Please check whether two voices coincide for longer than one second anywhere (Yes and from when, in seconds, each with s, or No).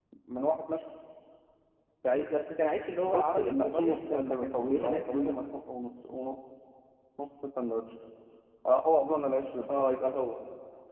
Yes, from 3.0 s